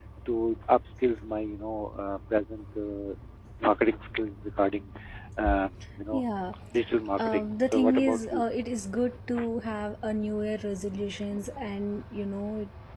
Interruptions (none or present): present